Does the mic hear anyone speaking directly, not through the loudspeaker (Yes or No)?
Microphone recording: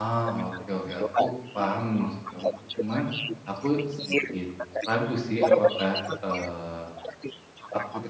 Yes